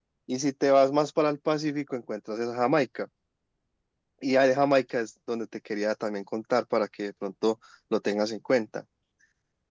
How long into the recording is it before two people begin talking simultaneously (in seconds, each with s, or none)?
none